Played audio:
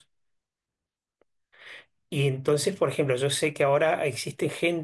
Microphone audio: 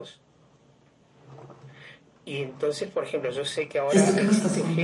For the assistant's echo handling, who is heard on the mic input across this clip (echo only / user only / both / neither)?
both